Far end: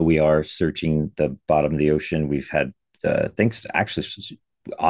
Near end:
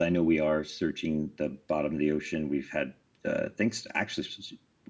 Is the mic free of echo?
No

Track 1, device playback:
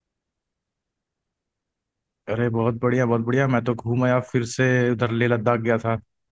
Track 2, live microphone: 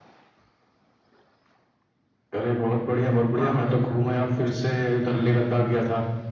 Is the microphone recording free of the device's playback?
No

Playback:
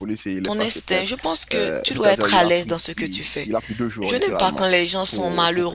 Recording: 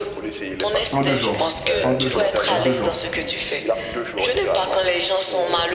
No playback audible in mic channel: No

